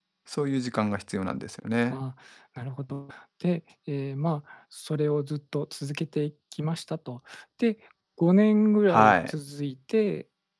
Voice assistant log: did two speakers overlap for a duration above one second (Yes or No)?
No